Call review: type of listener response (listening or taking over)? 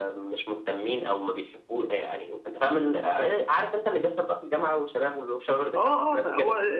taking over